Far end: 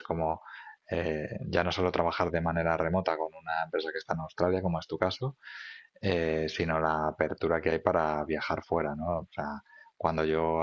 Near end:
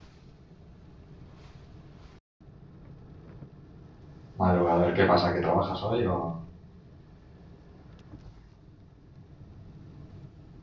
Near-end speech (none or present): present